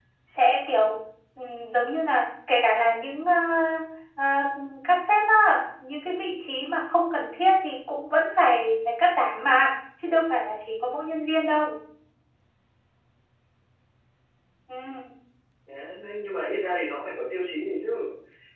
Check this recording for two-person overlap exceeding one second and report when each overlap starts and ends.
none

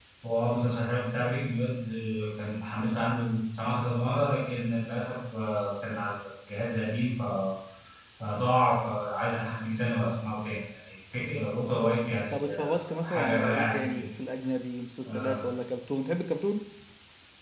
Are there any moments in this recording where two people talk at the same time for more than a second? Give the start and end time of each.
12.3-14.0

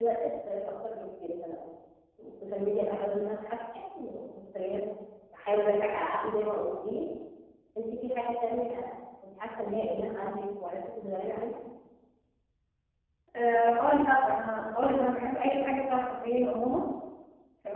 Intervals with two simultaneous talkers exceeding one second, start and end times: none

